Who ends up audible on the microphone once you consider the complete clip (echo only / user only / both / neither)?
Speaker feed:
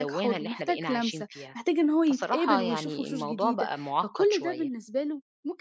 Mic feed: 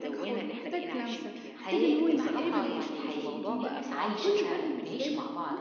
both